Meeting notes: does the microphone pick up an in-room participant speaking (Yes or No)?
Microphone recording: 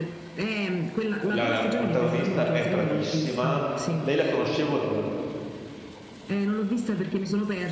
Yes